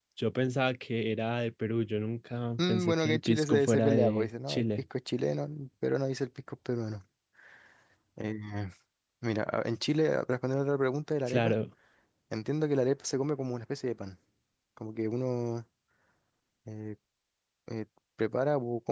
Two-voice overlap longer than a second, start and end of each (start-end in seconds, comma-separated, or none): 2.6-4.7